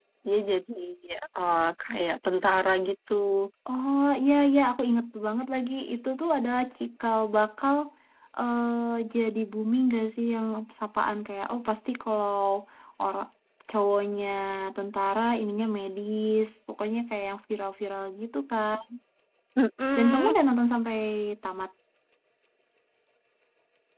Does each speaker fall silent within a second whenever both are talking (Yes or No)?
Yes